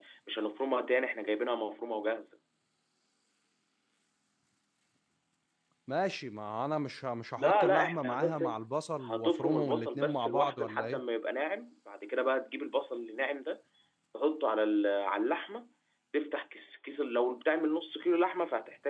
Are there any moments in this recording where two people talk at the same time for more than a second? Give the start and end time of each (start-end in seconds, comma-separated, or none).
7.4-8.6, 9.0-11.0